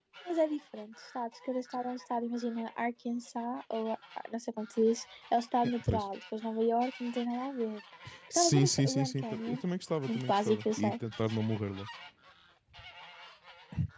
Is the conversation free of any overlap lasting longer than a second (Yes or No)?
No